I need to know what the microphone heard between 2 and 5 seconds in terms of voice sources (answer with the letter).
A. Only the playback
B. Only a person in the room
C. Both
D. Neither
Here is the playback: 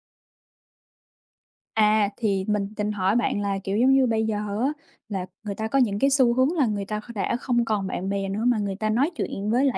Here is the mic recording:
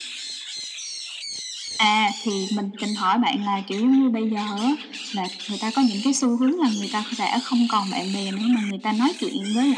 A